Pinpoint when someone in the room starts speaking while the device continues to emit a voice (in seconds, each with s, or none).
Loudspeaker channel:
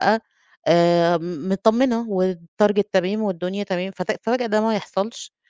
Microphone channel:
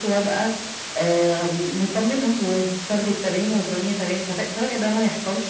none